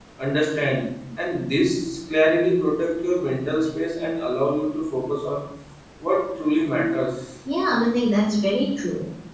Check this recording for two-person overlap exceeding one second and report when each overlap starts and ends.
none

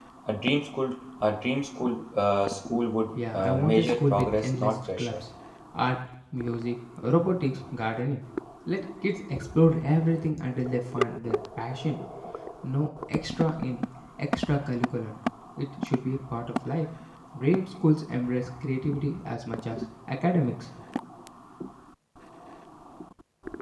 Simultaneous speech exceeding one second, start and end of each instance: 3.3-5.2

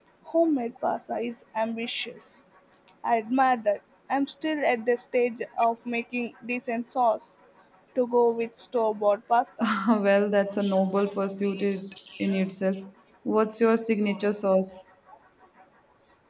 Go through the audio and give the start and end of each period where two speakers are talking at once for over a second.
none

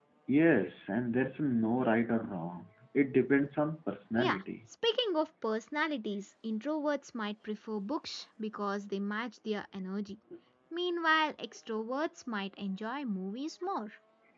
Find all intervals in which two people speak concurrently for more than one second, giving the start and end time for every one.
none

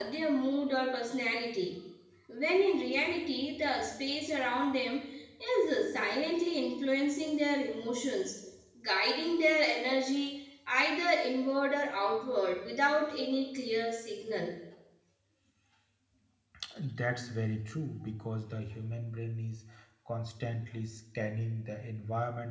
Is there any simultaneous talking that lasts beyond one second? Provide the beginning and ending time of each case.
none

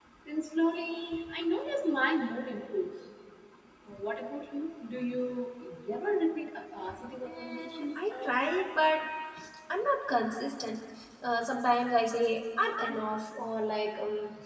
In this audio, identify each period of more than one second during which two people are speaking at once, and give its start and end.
7.2-8.7

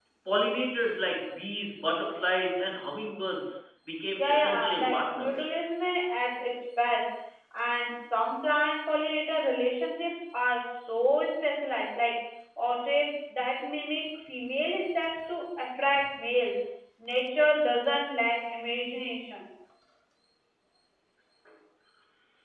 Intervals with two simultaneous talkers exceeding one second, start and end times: 4.2-5.6

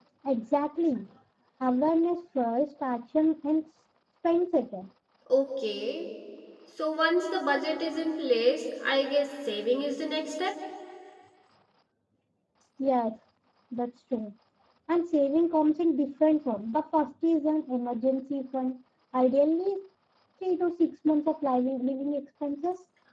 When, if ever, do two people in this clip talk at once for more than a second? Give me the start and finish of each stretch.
none

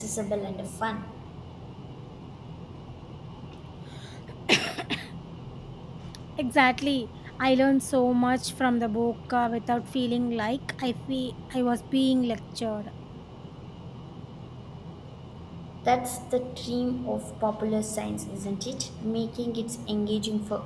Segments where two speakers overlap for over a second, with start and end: none

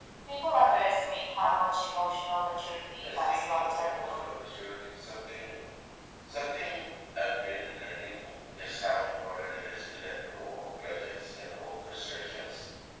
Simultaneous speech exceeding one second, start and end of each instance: 3.0-4.2

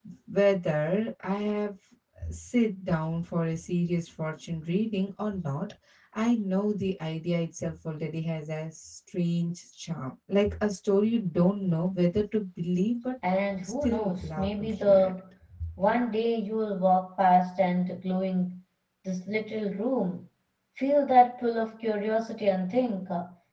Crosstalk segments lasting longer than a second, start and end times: 13.6-15.1

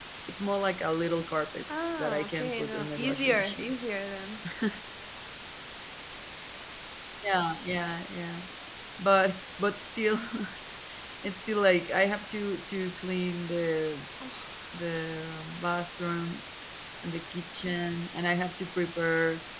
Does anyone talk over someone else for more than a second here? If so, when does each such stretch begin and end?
2.0-3.7

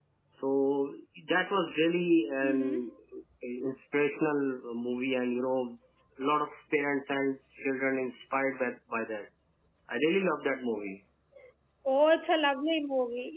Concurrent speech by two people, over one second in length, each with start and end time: none

